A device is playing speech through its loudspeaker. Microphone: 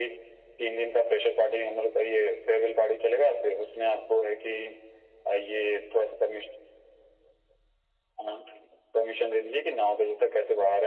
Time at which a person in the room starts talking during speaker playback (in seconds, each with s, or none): none